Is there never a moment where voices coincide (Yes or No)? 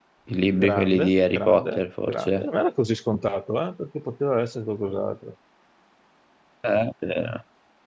No